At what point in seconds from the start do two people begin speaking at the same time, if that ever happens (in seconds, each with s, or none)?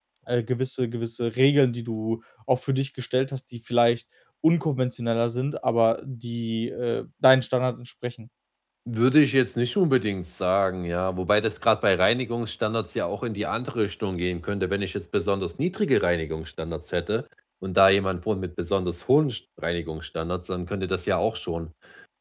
none